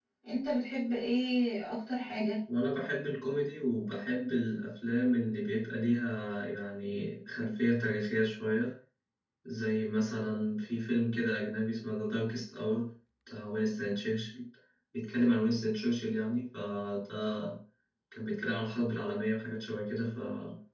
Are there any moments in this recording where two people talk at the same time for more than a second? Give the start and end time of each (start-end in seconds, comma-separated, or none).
none